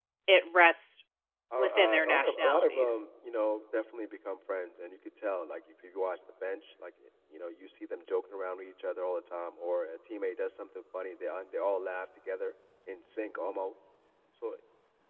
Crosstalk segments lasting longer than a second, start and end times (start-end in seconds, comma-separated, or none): 1.6-3.0